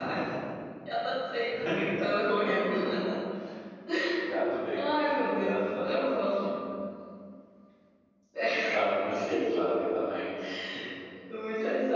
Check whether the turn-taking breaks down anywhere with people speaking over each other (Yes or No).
Yes